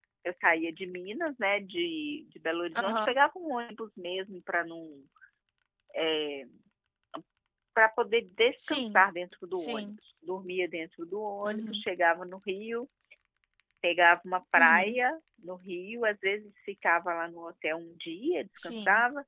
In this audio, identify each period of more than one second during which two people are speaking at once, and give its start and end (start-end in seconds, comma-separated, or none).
none